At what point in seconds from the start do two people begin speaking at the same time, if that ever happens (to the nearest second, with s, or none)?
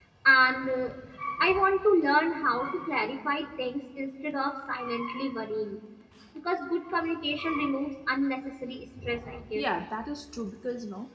none